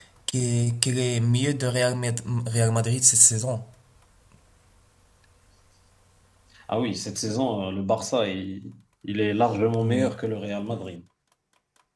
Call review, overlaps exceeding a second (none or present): none